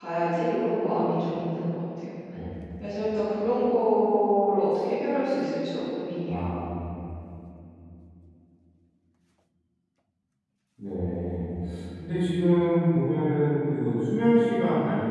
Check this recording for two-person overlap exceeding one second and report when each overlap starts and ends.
none

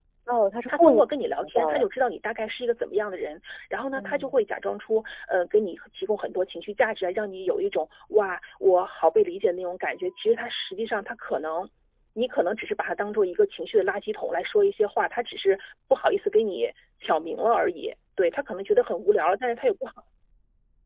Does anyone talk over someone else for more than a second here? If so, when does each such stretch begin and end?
none

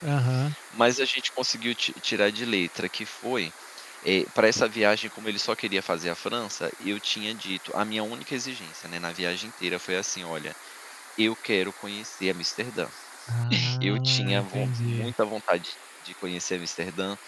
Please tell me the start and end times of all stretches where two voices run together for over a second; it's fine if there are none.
13.8-15.1

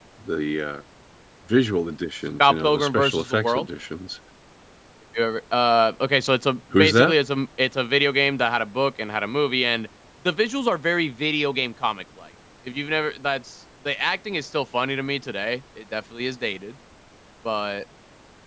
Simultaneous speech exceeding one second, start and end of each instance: 2.4-3.7

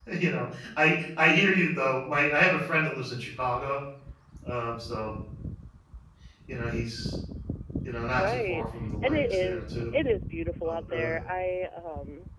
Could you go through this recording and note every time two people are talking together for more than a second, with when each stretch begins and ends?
8.1-9.9

